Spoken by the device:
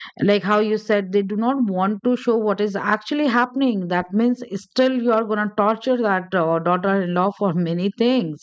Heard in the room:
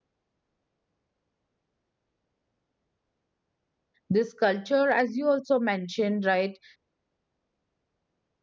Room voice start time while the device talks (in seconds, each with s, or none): 4.1 s